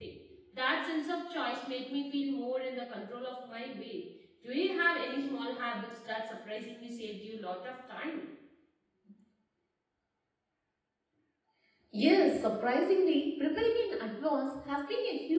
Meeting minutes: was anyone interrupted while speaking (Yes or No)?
No